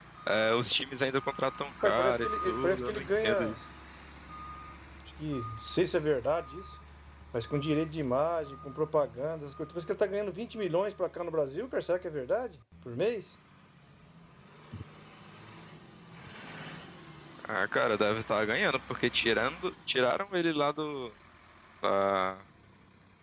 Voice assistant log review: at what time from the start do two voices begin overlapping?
1.8 s

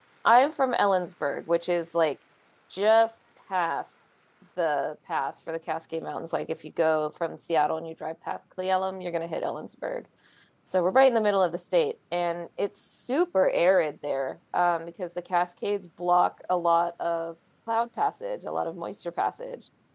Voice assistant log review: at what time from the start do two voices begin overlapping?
none

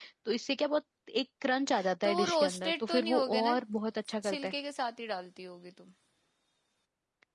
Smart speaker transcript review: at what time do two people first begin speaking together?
2.0 s

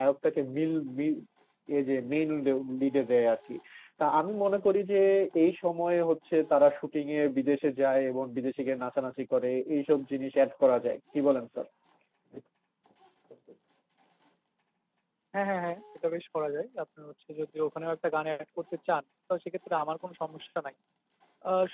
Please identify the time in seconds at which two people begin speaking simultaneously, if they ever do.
none

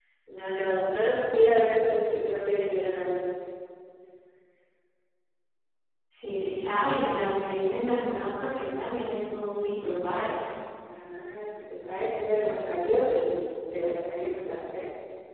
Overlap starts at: none

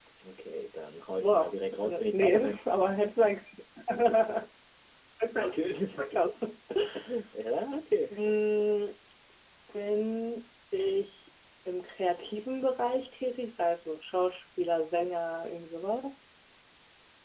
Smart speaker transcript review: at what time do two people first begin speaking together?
1.2 s

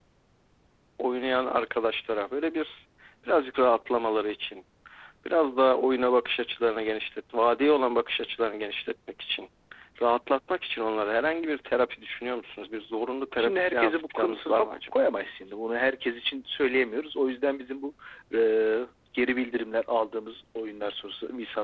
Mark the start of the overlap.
13.4 s

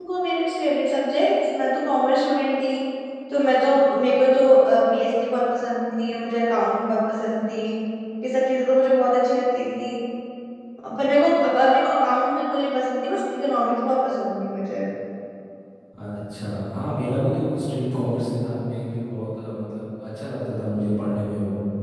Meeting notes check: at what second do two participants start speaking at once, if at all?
none

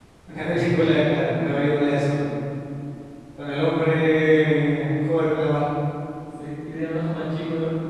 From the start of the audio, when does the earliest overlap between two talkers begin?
none

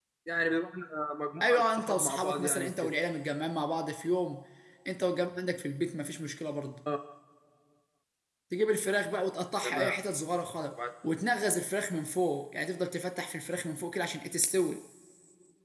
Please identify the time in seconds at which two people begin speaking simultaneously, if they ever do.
1.4 s

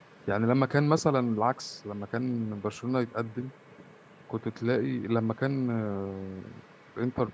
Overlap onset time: none

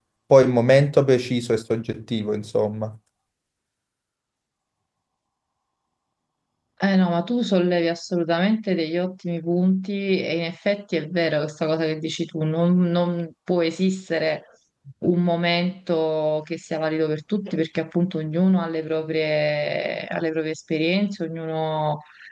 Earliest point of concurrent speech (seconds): none

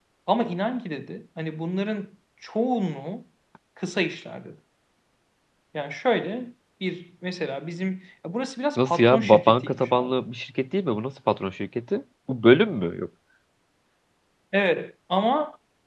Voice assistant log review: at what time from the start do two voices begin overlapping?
8.8 s

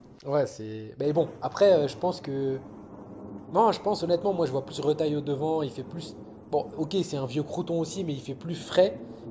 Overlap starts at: none

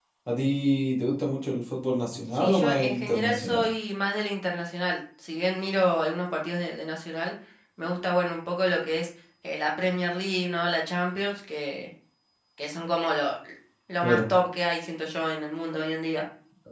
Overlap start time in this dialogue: 2.3 s

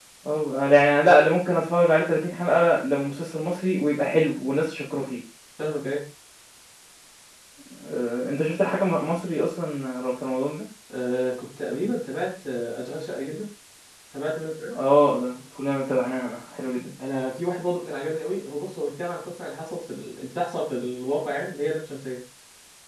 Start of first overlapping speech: none

